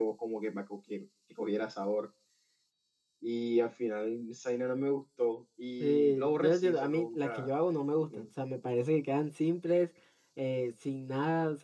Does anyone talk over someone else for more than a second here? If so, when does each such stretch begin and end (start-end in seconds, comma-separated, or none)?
5.8-7.5